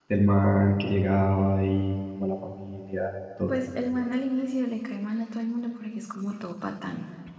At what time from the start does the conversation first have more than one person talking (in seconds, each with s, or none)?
none